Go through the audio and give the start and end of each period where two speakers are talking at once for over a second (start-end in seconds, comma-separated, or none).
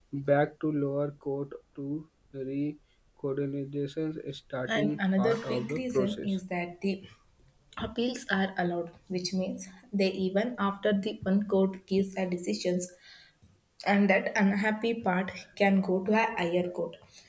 4.7-6.4